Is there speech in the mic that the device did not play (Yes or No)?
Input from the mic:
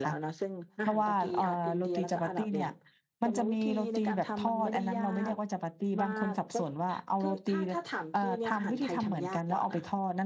Yes